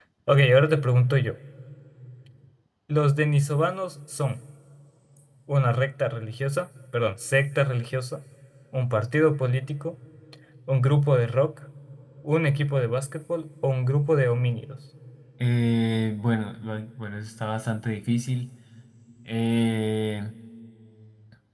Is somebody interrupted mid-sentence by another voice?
No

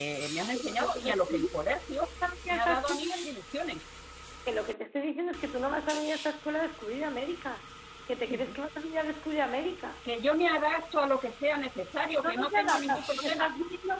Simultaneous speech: Yes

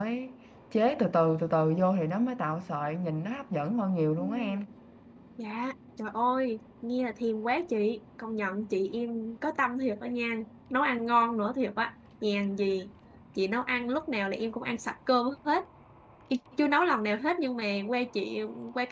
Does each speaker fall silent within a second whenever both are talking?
Yes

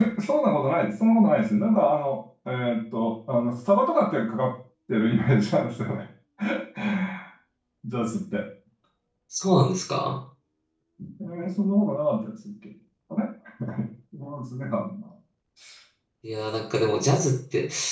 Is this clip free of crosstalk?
Yes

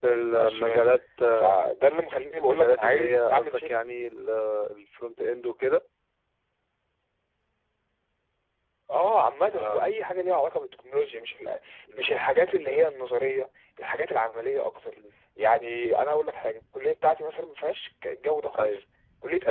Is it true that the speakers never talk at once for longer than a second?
No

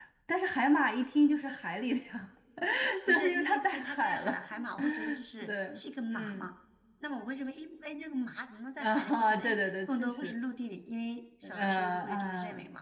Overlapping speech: Yes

